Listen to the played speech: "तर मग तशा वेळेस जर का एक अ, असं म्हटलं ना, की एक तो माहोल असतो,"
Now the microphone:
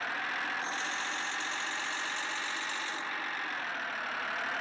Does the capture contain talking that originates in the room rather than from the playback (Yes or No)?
No